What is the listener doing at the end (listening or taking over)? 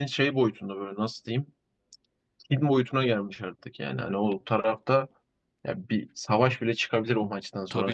taking over